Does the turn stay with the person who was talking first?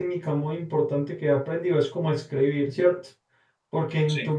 Yes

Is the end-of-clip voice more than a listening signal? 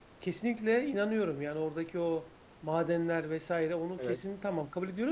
No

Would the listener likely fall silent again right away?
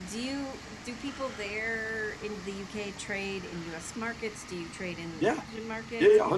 No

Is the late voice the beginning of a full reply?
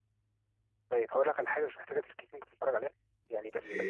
No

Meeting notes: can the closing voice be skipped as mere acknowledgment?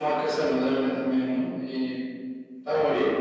No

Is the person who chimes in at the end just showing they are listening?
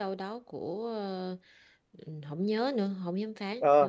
No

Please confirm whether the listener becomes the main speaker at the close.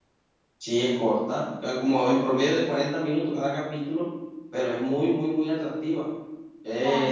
No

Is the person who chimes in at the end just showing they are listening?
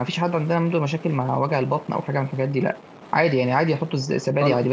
Yes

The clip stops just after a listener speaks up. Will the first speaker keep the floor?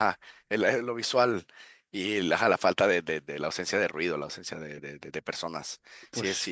Yes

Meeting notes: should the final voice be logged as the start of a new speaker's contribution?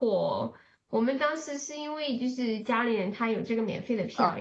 Yes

